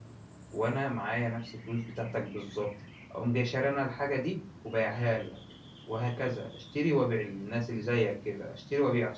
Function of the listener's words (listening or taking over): listening